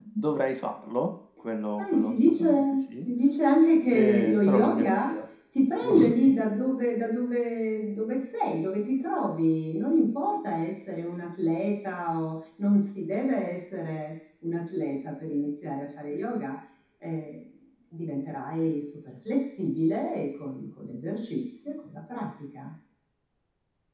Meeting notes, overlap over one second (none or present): present